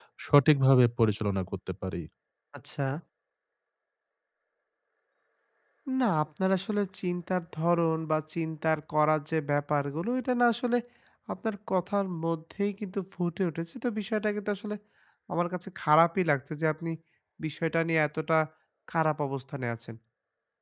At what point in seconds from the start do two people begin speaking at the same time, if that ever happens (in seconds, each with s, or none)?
none